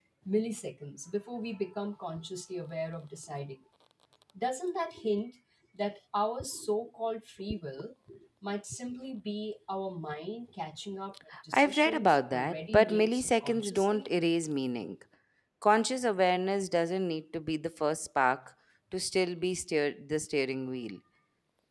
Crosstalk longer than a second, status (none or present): present